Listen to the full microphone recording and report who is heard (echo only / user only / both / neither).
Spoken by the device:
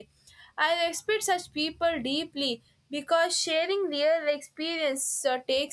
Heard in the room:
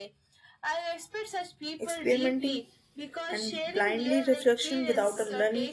both